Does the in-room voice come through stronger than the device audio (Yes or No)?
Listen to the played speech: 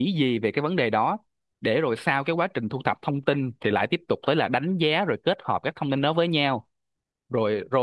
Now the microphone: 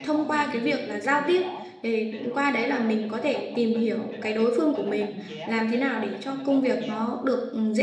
Yes